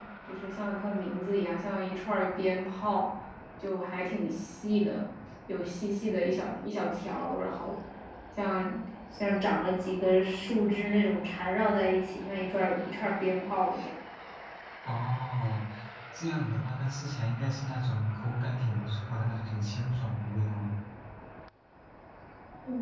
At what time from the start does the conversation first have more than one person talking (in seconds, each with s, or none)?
none